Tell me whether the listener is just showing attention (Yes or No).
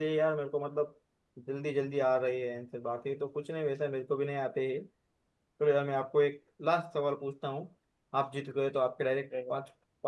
Yes